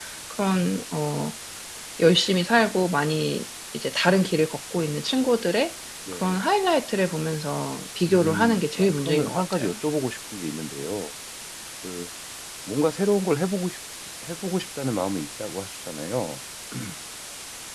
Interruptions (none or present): present